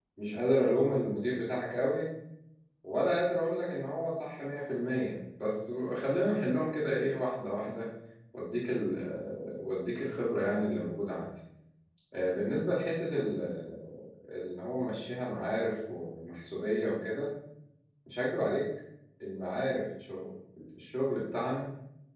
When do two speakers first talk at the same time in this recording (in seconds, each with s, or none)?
none